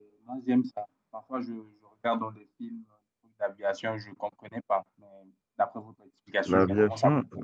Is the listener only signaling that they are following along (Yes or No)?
No